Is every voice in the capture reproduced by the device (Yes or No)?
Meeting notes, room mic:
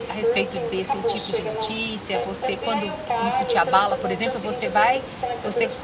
No